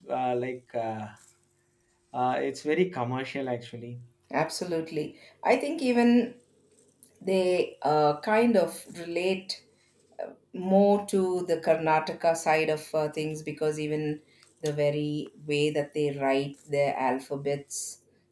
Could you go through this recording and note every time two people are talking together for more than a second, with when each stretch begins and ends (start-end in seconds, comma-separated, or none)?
none